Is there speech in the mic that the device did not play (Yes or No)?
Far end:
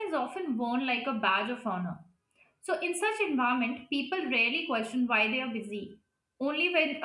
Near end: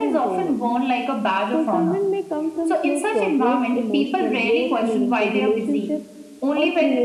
Yes